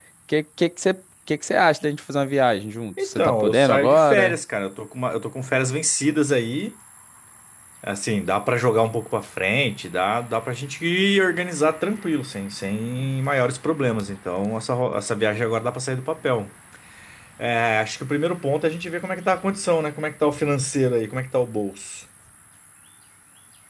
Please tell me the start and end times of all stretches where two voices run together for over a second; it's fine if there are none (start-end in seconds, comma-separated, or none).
3.0-4.4